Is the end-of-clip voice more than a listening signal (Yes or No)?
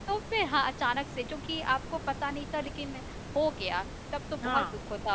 No